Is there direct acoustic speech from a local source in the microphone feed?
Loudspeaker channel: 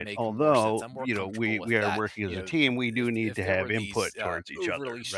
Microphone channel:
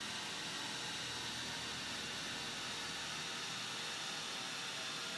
No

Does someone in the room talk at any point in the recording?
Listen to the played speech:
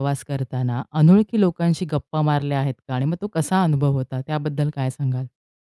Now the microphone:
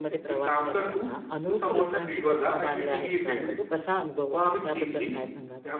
Yes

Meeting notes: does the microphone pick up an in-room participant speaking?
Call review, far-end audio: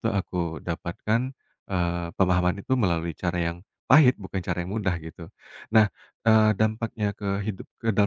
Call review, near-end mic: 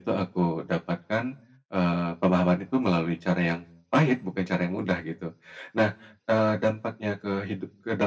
No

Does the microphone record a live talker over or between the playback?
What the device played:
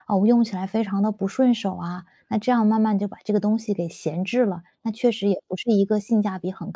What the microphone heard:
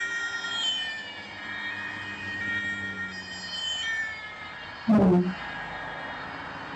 Yes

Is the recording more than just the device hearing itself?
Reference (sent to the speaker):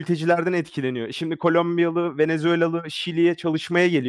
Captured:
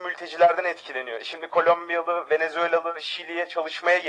No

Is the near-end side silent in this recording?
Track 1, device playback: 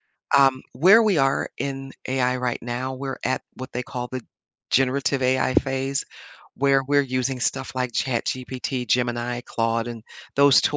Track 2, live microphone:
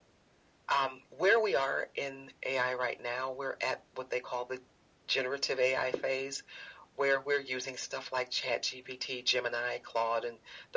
Yes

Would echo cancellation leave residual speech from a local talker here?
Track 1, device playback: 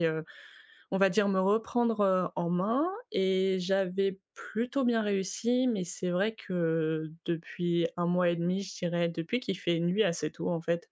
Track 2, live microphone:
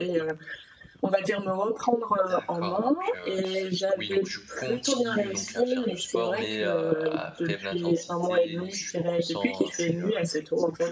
Yes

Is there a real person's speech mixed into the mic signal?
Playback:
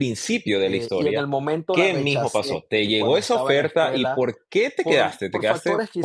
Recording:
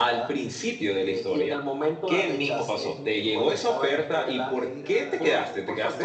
Yes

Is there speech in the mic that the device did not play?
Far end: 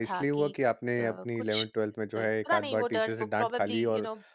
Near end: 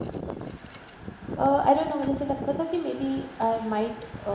Yes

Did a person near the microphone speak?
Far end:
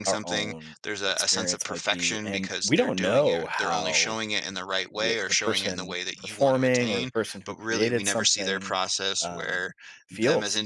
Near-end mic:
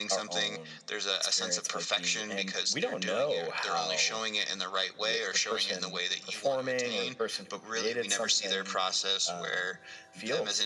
No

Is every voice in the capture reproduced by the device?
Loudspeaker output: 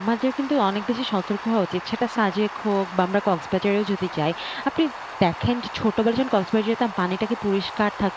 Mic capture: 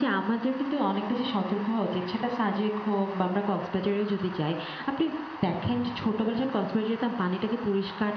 Yes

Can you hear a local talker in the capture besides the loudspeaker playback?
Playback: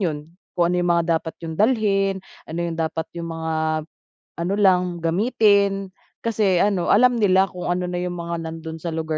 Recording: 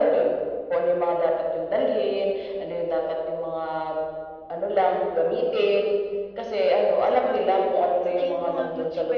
Yes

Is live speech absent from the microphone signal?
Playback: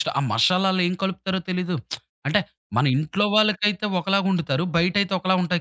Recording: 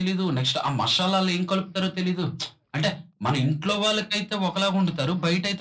Yes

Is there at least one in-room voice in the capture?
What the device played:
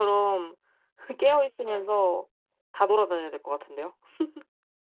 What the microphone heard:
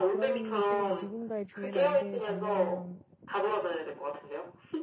Yes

